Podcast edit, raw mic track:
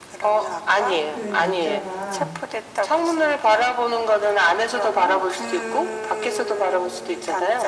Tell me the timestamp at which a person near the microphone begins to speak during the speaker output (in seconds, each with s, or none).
1.1 s